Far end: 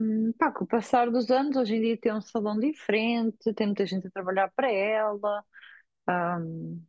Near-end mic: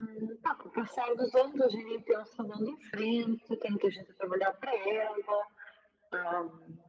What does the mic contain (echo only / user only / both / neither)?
echo only